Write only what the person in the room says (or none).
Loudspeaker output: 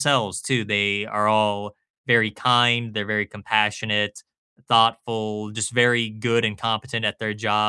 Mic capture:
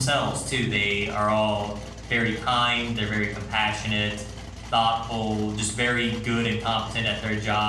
none